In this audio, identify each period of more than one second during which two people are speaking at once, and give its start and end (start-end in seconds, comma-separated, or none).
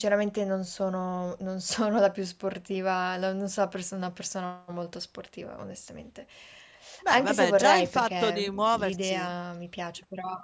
7.1-9.4